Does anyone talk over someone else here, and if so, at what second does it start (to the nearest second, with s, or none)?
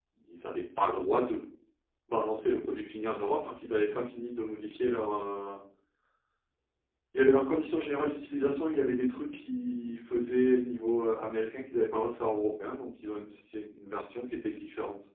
none